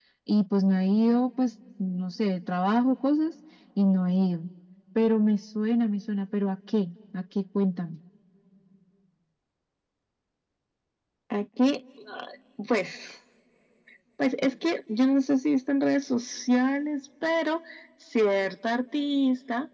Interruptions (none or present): none